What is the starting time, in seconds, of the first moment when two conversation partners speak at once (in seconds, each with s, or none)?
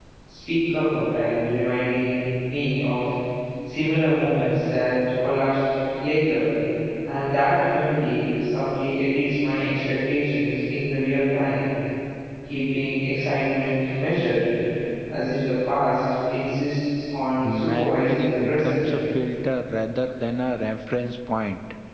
17.4 s